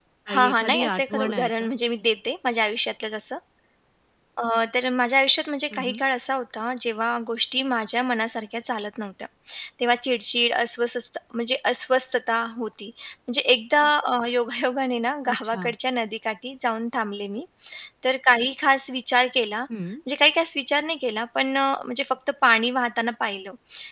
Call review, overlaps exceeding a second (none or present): present